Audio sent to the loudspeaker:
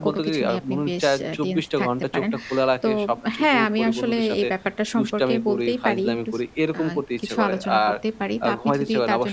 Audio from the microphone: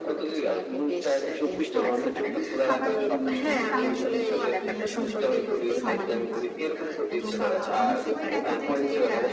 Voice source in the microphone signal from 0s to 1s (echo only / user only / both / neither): echo only